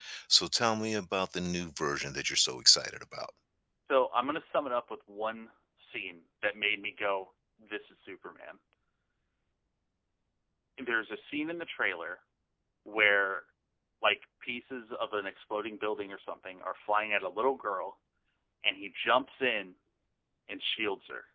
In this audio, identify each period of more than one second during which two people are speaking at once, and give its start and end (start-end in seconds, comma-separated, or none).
none